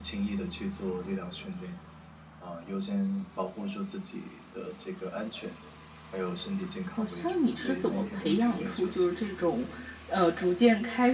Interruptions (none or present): present